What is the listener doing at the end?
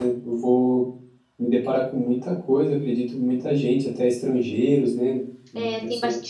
taking over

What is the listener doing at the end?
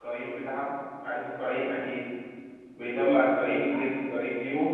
listening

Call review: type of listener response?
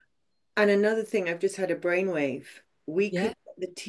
listening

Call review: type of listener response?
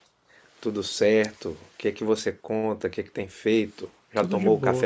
taking over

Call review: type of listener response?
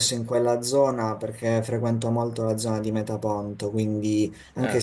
listening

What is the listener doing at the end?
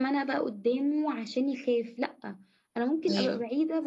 listening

